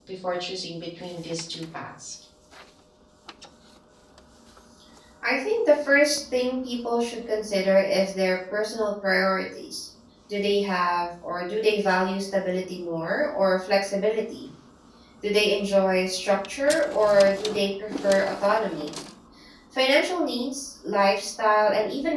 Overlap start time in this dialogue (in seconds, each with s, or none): none